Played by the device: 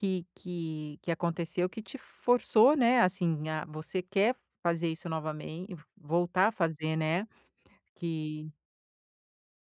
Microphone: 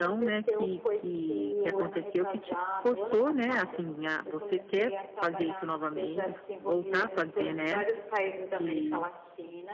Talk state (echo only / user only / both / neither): both